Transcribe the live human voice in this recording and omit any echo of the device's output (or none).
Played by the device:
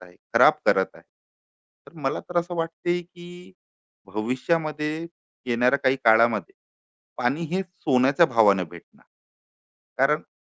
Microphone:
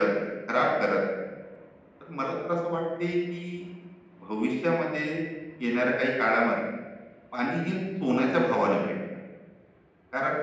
none